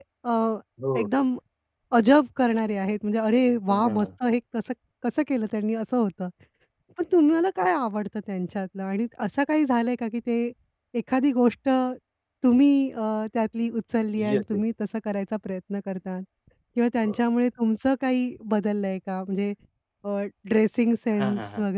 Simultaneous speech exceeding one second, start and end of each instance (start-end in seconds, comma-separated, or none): none